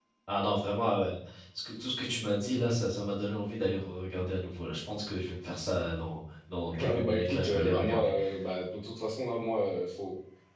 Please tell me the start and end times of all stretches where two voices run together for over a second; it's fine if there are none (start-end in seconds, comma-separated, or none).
6.8-8.1